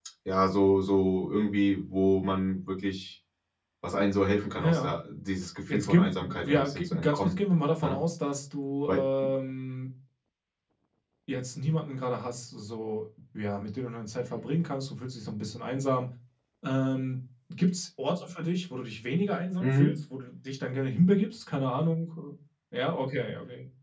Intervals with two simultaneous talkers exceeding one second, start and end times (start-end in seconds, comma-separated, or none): 5.7-7.4